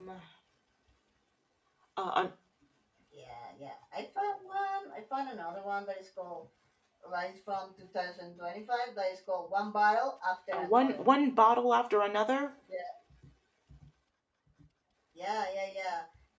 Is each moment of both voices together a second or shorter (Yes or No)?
Yes